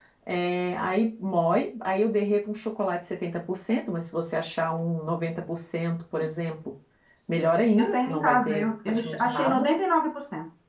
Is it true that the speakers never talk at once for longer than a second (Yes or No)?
No